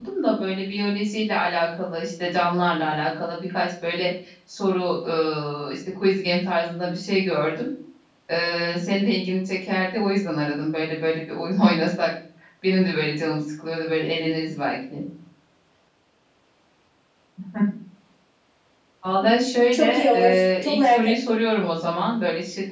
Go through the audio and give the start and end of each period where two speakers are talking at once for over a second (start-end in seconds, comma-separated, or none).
19.7-21.4